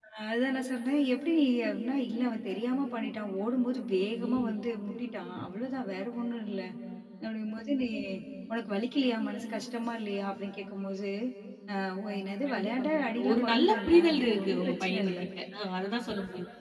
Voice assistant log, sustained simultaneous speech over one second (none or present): present